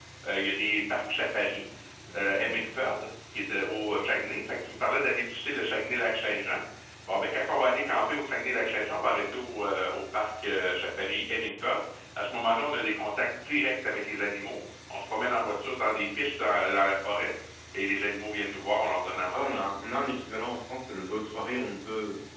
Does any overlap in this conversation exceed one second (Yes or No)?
No